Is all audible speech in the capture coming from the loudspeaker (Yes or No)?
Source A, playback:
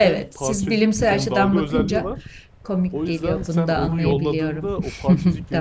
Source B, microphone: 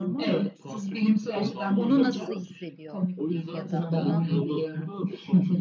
No